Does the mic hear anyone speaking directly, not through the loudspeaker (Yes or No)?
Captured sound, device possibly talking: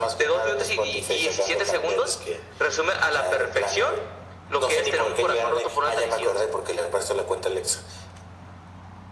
No